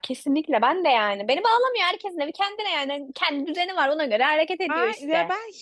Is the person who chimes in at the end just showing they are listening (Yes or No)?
No